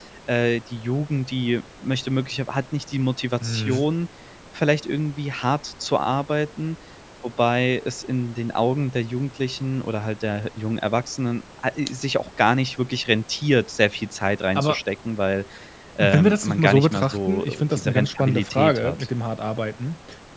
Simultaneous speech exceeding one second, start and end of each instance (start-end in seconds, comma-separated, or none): 16.0-19.1